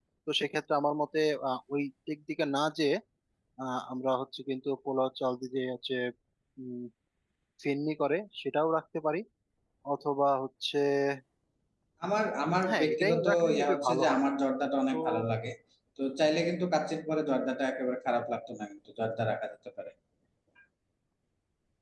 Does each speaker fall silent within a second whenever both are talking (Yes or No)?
No